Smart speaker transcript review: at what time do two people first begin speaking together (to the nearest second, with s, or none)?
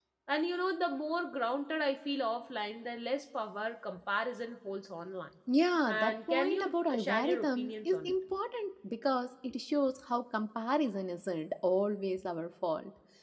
6 s